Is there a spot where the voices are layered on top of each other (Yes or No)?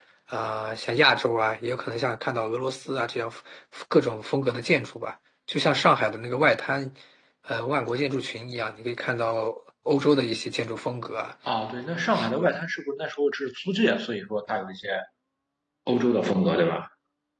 No